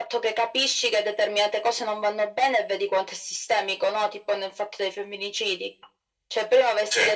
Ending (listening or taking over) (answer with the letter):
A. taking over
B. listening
B